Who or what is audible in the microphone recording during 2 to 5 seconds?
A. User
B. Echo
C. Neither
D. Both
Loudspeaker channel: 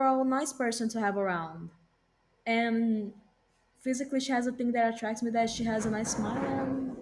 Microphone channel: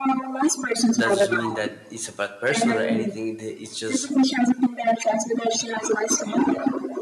D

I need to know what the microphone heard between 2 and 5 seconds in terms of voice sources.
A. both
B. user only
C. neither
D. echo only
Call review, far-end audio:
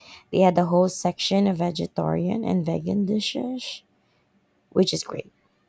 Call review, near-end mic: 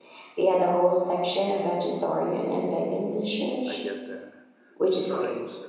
A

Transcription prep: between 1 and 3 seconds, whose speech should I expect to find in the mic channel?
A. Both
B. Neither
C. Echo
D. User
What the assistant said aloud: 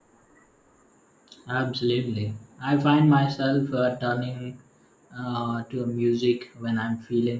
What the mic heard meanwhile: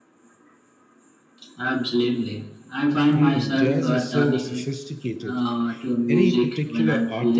C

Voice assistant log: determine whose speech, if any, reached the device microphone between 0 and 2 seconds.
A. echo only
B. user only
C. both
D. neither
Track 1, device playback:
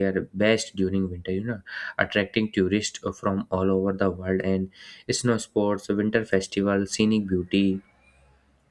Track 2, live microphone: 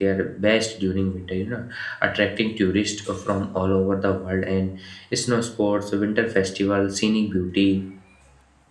A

